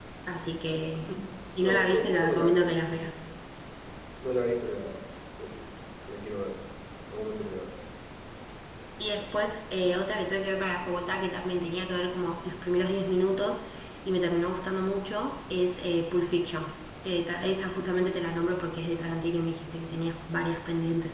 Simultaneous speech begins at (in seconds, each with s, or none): 1.6 s